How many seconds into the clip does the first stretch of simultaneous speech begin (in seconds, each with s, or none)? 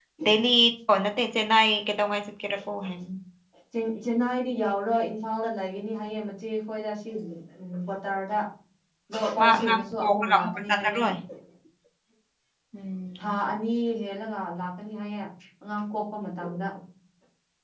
9.4 s